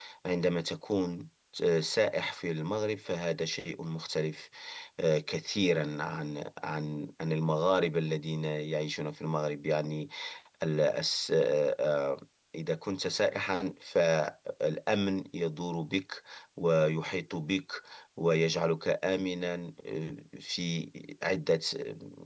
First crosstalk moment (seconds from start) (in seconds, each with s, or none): none